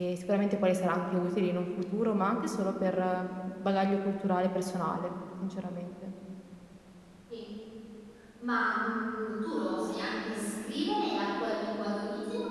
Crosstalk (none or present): none